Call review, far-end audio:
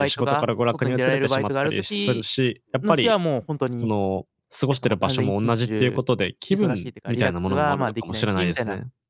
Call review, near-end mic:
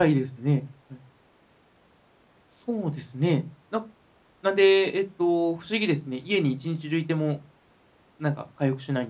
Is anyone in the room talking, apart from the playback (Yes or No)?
Yes